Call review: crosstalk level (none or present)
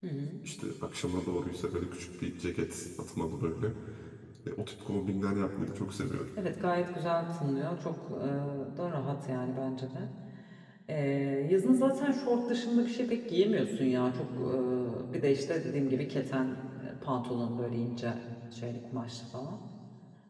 none